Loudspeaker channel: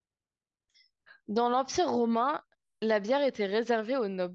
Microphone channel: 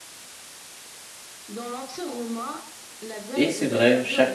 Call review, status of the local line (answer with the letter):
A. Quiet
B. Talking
B